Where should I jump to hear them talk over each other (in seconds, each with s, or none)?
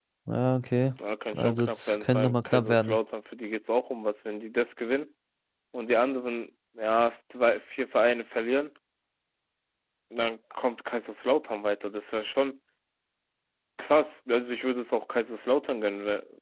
1.3 s